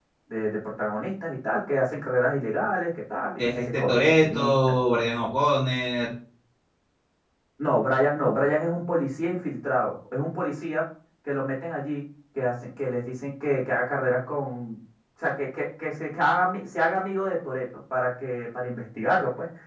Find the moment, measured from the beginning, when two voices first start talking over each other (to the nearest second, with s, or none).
3 s